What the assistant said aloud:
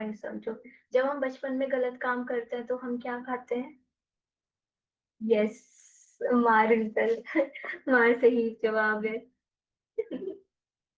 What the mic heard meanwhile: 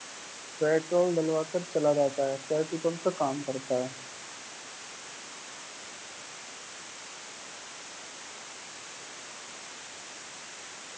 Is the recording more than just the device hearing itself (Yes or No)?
Yes